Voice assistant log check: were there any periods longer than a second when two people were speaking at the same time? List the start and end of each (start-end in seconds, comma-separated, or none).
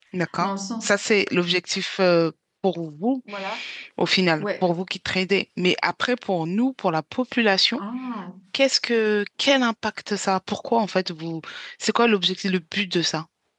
none